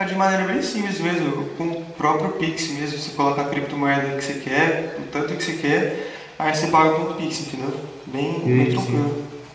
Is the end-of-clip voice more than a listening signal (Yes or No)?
Yes